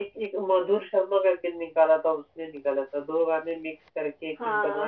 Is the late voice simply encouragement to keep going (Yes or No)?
No